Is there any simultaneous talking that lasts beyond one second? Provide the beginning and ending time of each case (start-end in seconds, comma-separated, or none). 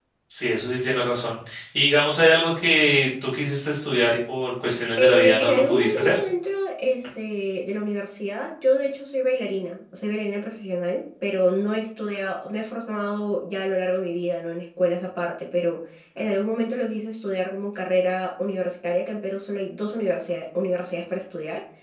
5.0-6.2